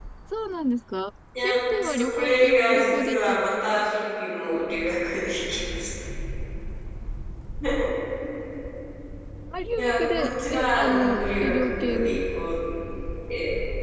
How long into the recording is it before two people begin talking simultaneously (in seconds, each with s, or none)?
1.4 s